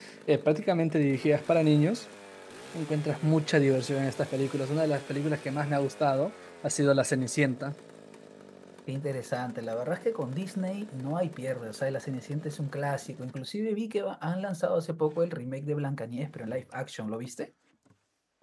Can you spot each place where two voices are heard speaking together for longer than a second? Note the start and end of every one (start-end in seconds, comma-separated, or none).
none